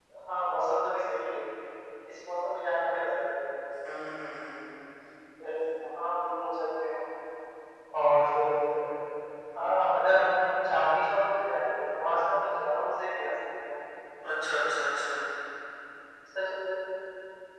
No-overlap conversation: Yes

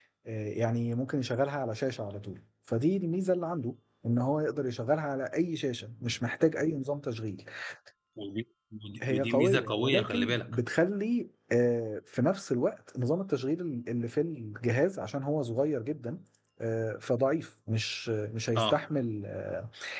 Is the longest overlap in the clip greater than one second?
Yes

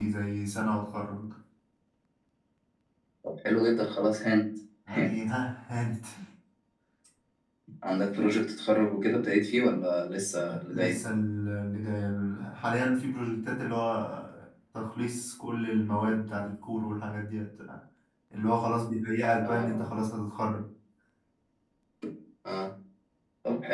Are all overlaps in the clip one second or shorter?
Yes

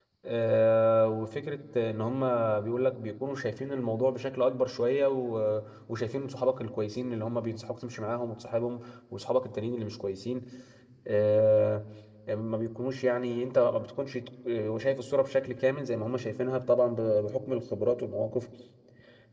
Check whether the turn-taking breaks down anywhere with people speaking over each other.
No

